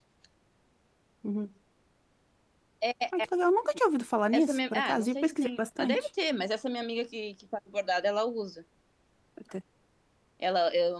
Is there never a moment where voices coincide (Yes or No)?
No